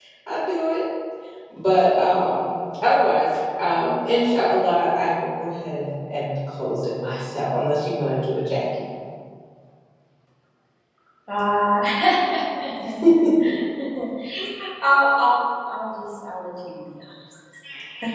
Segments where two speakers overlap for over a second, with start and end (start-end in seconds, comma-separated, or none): none